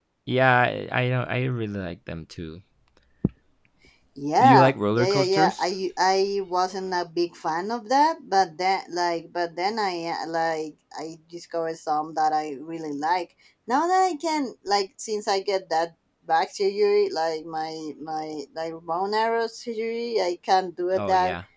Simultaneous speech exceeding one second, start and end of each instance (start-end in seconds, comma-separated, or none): 4.4-5.6